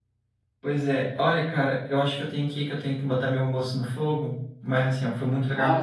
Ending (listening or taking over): listening